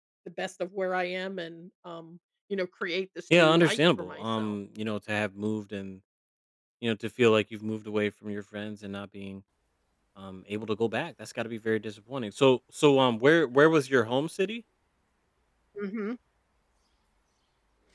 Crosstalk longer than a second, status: present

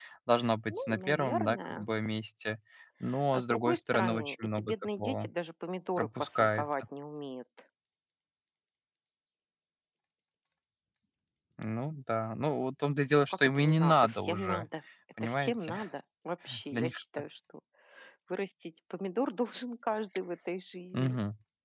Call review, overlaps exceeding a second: present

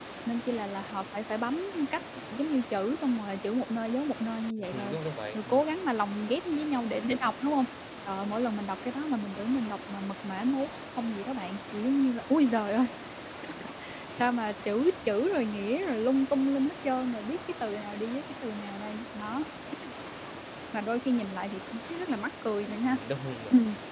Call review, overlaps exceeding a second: none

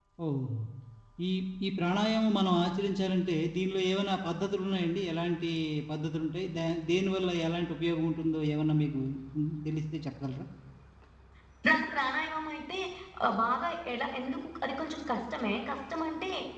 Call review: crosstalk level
none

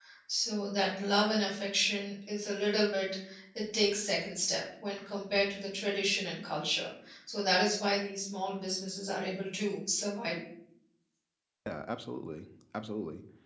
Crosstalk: none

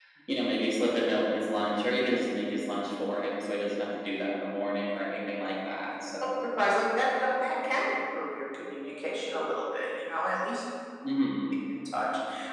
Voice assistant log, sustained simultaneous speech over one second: none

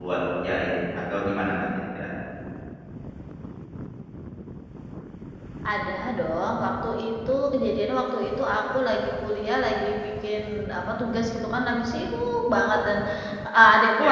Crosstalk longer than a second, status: none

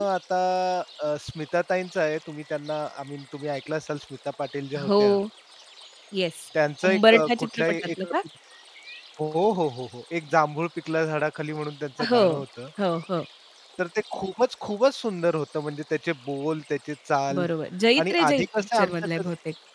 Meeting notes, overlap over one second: present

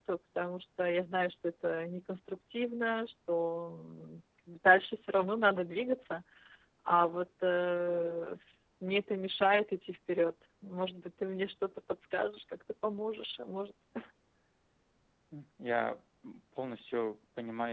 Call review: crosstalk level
none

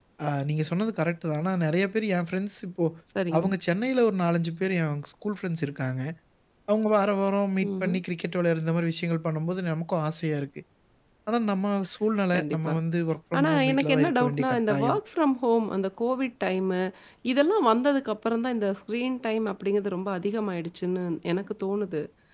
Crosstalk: present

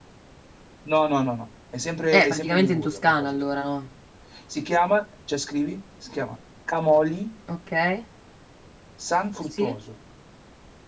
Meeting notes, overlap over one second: present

